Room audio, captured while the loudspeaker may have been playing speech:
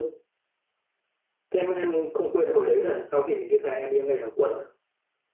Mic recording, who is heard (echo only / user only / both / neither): echo only